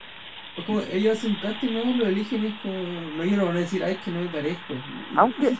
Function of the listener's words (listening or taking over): taking over